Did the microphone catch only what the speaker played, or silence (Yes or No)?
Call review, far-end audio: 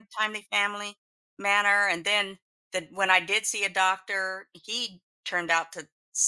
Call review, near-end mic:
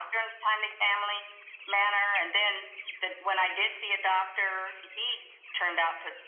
Yes